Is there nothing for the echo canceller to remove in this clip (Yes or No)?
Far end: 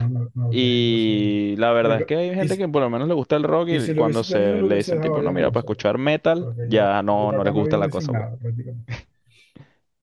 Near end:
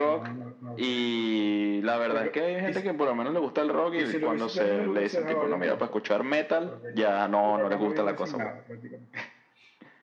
No